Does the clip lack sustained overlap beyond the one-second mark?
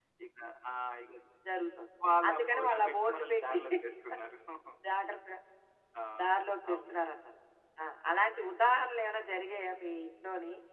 No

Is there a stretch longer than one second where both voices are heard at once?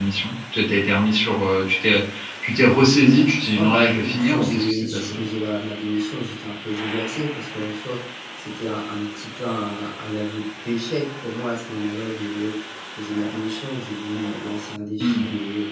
Yes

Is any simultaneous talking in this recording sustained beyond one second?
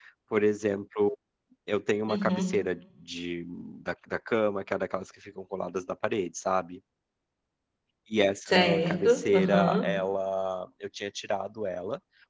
Yes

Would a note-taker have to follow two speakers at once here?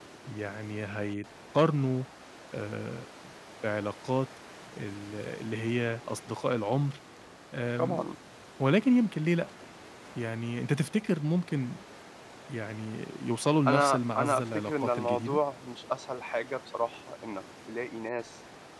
Yes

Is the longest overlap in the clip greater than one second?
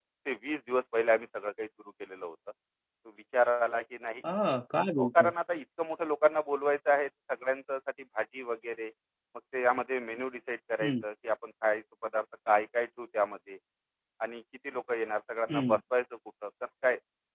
No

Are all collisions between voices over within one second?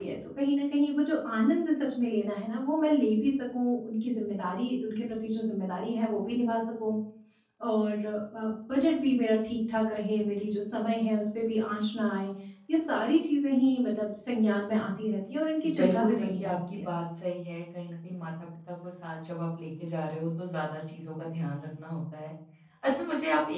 No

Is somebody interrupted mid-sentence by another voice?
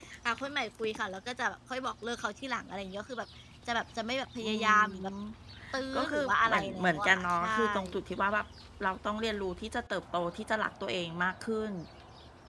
Yes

